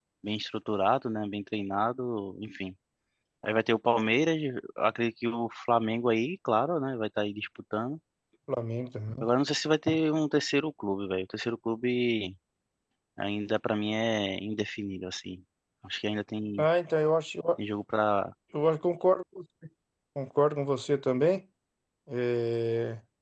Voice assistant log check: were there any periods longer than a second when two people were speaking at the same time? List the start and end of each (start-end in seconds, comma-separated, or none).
none